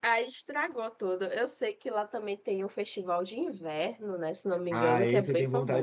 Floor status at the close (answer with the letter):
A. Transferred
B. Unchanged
A